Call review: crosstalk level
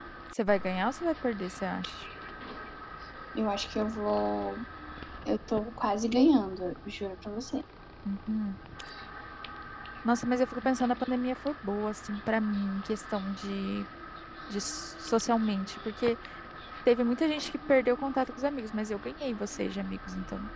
none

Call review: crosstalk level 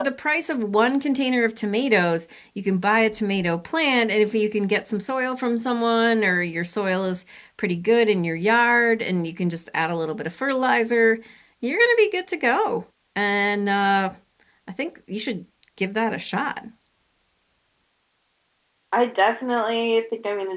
none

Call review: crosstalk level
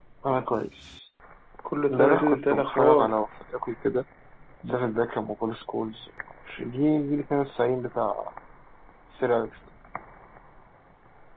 present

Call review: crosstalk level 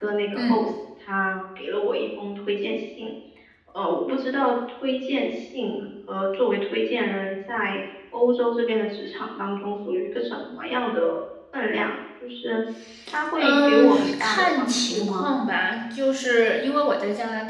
present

